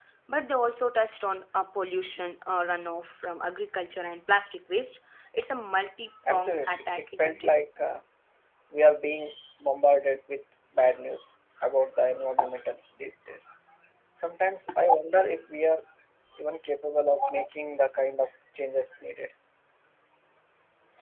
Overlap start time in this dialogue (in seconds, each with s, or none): 6.3 s